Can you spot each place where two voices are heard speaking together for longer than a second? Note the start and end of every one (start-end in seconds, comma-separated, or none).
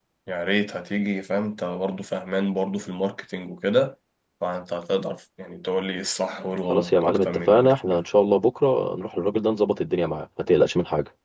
6.7-8.0